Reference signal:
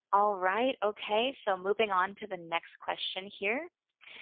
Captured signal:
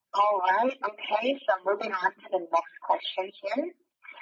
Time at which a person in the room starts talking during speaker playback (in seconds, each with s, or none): none